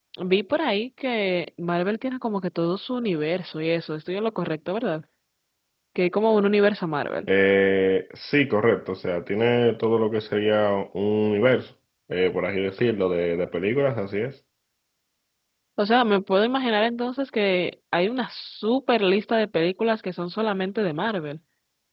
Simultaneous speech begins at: none

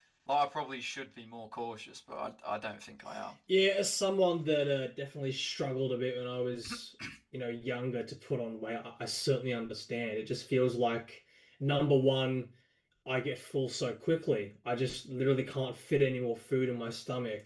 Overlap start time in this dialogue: none

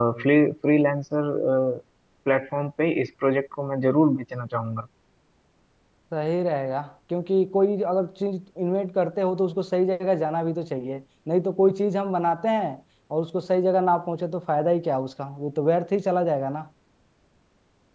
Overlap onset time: none

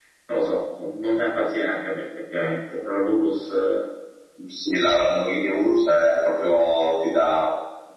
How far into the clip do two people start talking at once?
none

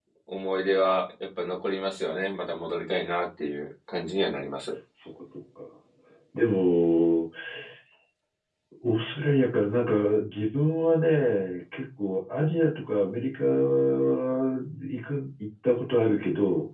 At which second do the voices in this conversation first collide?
none

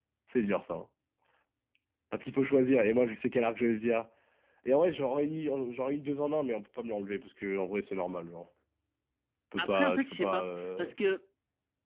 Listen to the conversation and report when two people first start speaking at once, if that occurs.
9.6 s

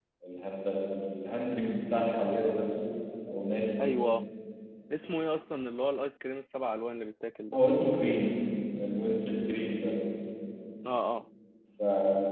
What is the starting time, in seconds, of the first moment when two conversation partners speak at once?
none

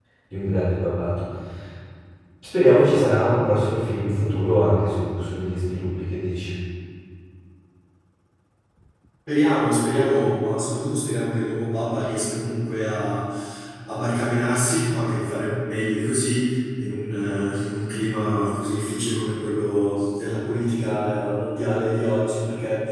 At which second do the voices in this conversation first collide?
none

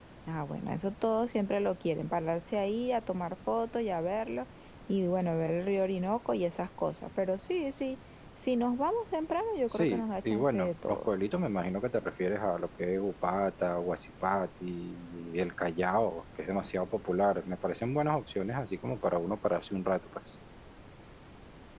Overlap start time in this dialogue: 9.7 s

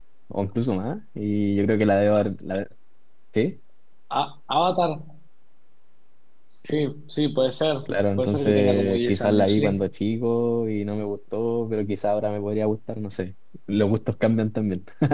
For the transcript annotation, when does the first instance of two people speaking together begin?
8.2 s

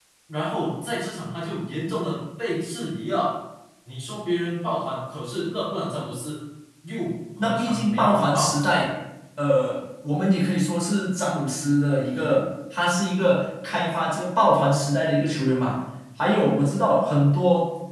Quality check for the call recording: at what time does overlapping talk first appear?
7.4 s

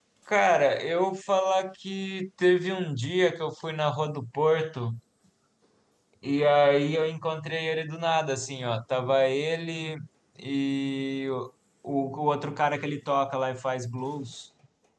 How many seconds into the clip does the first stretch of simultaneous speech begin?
none

